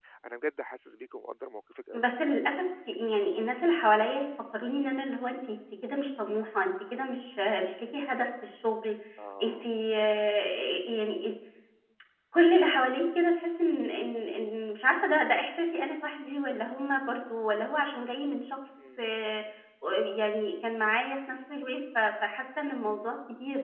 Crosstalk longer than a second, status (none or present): none